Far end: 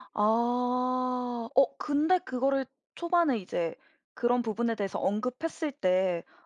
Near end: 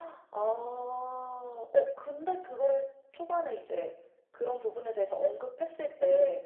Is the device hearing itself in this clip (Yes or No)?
Yes